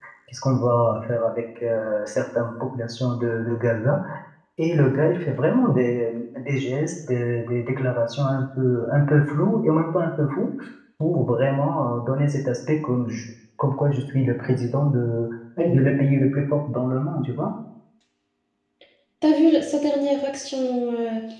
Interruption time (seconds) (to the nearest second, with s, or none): none